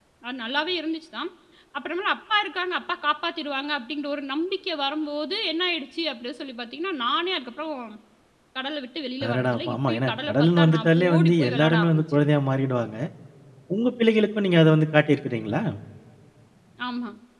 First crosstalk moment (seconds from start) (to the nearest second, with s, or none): 9 s